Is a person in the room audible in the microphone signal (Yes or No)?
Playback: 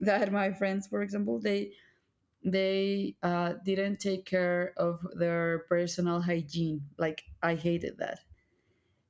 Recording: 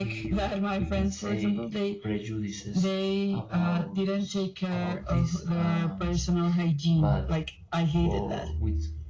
Yes